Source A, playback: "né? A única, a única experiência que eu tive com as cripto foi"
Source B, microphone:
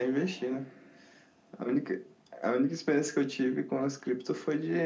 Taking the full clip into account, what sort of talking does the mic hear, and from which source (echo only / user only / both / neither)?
echo only